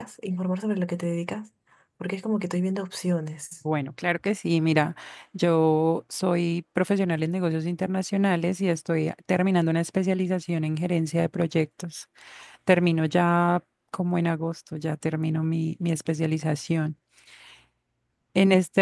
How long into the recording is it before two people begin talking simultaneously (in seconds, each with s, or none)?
none